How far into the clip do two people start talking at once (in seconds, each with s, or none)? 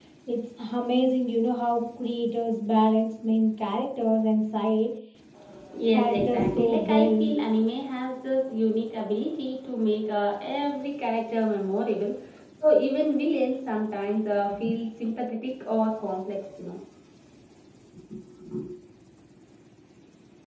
5.9 s